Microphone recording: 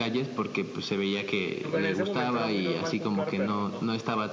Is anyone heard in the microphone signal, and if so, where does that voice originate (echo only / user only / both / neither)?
both